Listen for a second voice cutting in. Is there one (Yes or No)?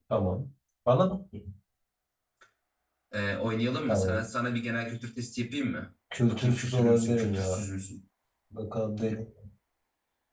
Yes